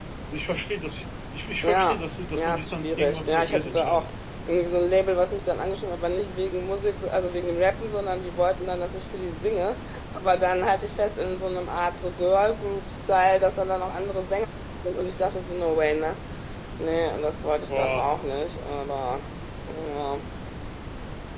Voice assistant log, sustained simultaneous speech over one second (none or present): present